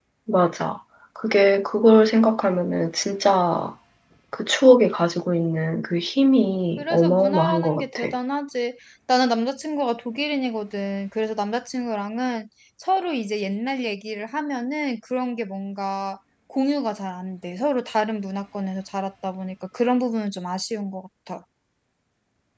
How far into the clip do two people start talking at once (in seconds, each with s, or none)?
6.8 s